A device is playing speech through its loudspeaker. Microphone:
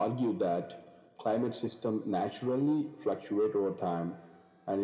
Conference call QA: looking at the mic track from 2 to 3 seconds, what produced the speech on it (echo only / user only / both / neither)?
echo only